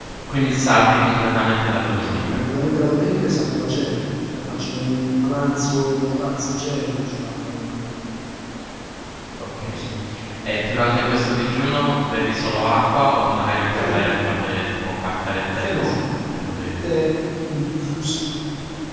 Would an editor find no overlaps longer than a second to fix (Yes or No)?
Yes